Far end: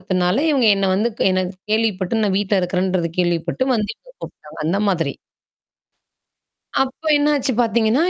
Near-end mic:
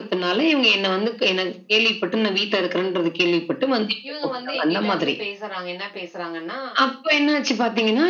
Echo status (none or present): present